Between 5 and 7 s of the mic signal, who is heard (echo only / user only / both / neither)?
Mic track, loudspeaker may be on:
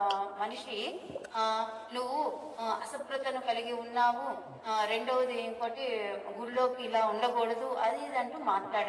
echo only